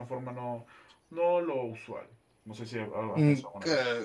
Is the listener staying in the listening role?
No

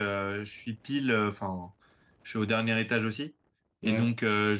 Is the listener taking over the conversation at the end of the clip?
No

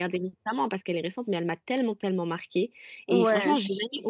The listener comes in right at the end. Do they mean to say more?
No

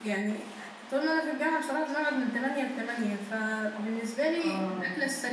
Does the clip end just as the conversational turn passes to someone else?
No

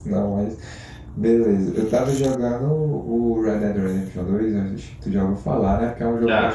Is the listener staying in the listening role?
Yes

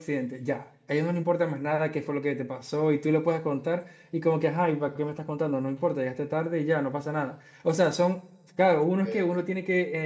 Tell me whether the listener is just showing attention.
Yes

